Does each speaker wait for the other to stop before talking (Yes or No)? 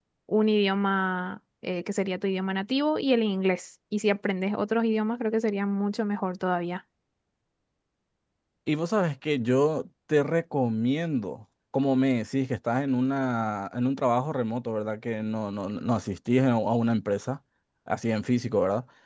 Yes